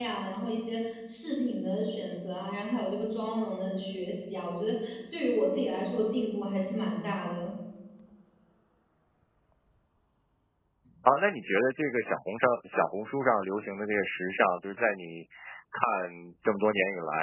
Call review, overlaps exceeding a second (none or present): none